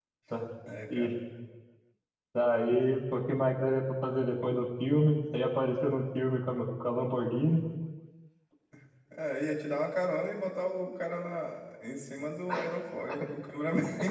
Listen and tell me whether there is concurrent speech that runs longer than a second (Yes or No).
No